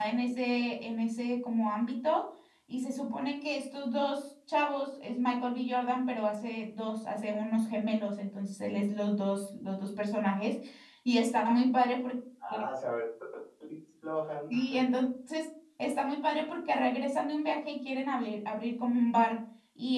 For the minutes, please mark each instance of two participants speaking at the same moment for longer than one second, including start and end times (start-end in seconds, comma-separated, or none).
none